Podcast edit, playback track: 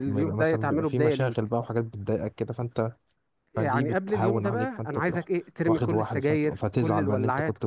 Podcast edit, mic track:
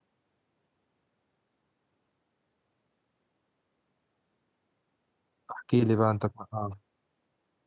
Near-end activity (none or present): present